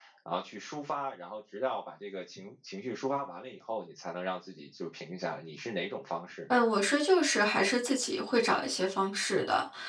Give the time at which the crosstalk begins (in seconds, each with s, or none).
none